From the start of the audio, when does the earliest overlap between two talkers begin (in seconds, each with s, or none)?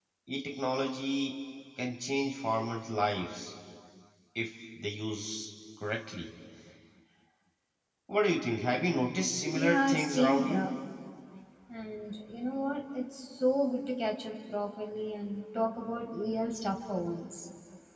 9.4 s